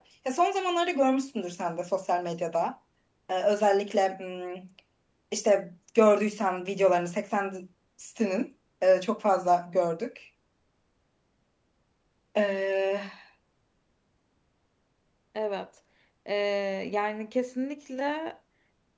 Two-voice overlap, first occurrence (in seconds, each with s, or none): none